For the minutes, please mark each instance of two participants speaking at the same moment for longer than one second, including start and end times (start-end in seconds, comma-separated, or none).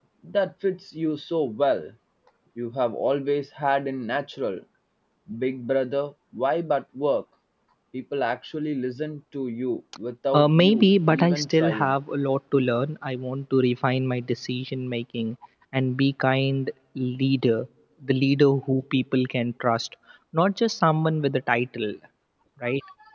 10.3-11.9